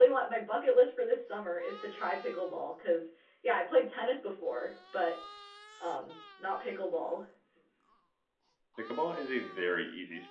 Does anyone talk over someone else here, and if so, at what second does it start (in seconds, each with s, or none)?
none